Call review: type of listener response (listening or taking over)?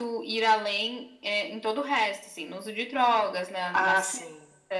taking over